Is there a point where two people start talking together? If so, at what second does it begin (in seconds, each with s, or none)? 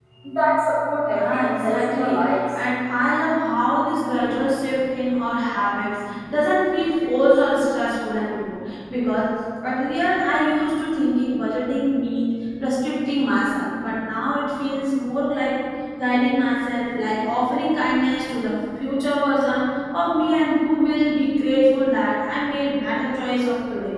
1.1 s